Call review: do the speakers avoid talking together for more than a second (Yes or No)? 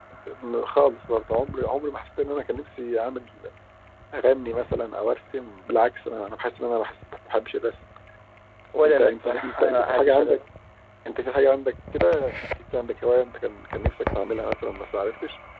No